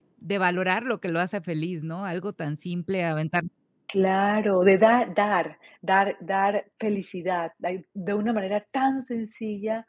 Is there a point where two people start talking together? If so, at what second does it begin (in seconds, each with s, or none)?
none